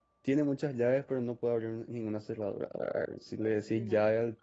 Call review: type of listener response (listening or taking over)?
listening